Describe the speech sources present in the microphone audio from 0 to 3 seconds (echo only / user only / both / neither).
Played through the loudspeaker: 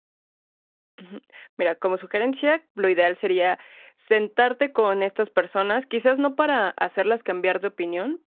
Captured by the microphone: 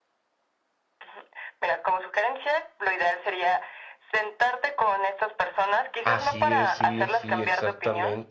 echo only